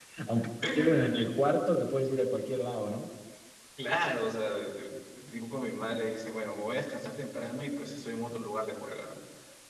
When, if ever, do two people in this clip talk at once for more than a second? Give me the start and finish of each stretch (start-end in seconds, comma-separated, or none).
none